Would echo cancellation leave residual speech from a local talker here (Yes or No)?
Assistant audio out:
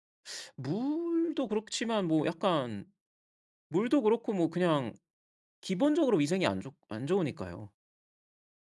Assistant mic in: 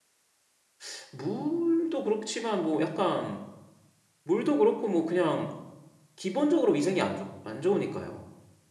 No